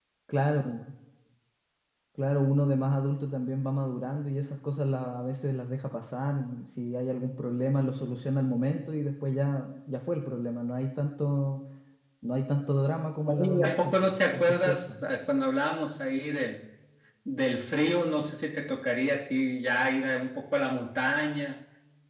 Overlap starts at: 13 s

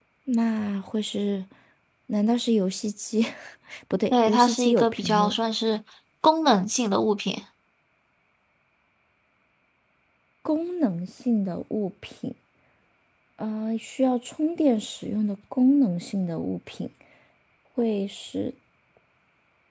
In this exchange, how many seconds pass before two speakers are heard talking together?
4 s

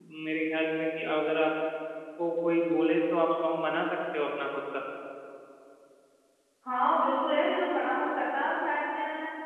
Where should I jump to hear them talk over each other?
none

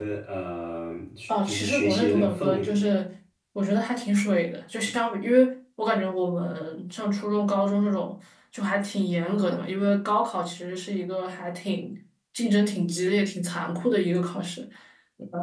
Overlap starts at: 1 s

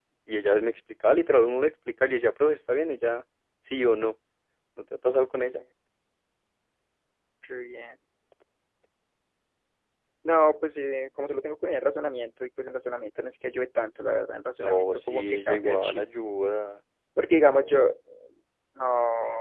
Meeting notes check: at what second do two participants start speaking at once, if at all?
15 s

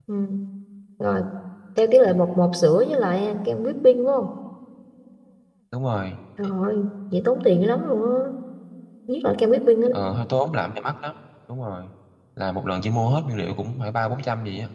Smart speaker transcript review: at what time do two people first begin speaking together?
none

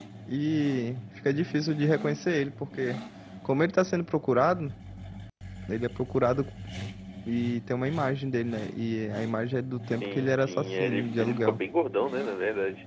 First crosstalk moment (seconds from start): 10 s

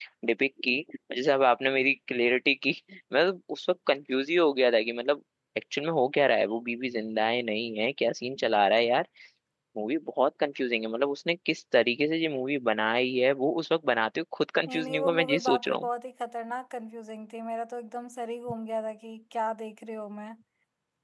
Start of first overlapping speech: 15 s

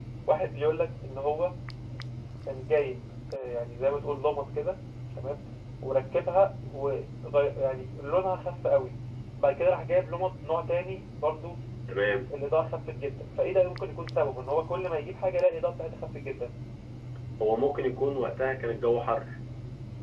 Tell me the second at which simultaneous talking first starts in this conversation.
none

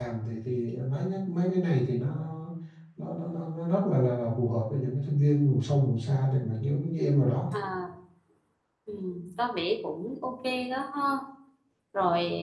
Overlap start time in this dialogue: none

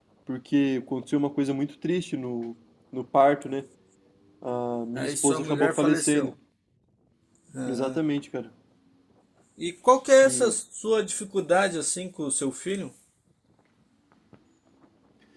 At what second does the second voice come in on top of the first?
5 s

